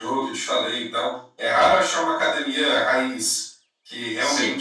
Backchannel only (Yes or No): Yes